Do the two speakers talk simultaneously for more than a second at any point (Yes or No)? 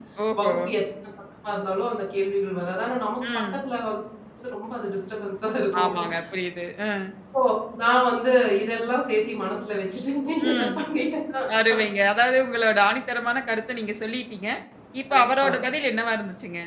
No